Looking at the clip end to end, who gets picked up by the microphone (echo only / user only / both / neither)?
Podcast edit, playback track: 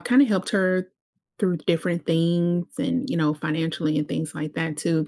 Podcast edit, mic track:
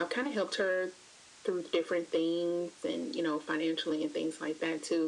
echo only